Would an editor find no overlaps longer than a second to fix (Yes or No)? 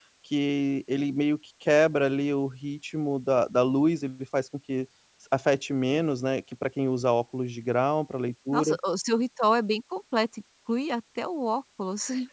Yes